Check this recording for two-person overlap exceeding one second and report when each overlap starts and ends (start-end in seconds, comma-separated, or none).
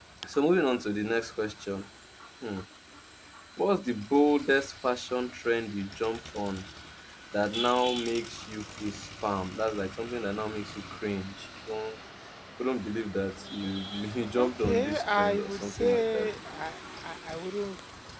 14.4-16.3